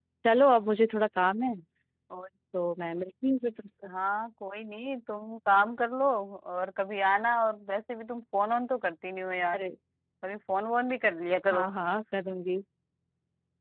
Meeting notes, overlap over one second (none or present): none